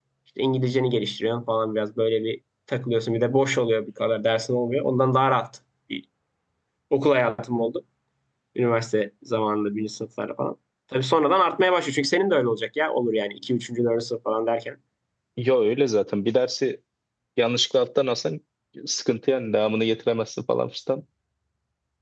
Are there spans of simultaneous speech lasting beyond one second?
No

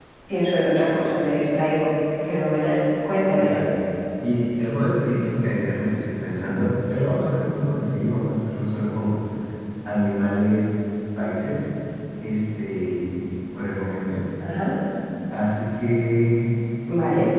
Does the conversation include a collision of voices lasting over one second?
No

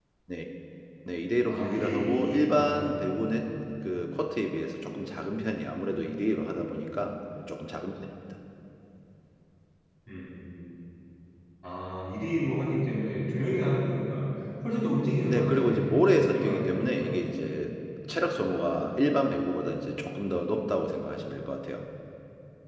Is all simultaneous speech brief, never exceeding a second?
No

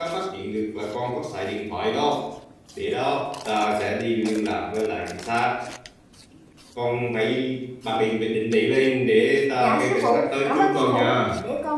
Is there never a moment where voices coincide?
No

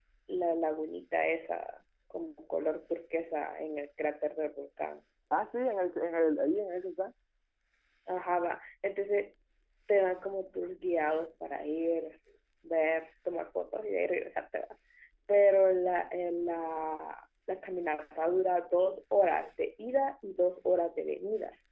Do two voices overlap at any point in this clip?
No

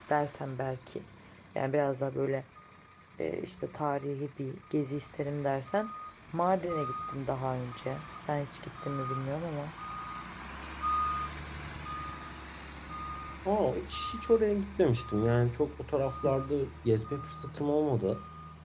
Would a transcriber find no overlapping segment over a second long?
Yes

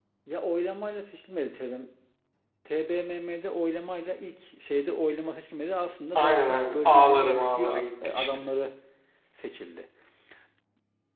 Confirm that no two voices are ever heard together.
No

